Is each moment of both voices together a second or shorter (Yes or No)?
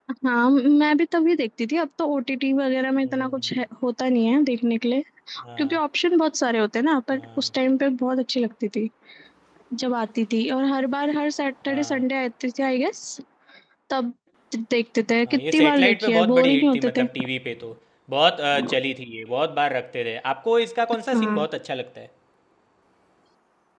No